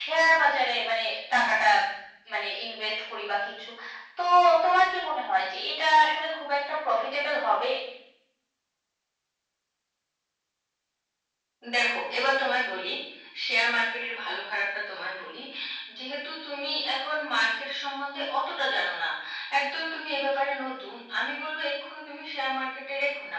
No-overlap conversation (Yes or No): Yes